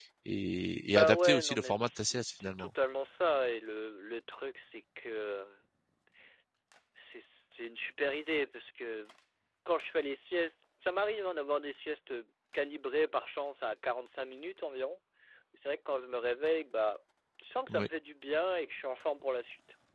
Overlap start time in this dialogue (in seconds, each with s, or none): 0.9 s